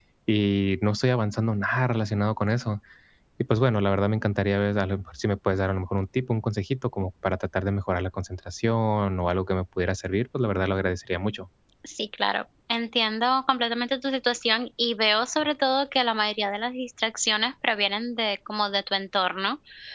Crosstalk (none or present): none